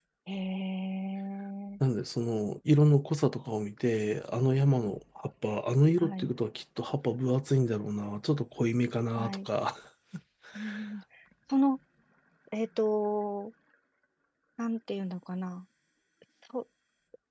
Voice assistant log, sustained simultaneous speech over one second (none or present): none